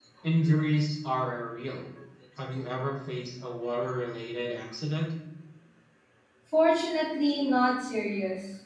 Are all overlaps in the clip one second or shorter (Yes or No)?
Yes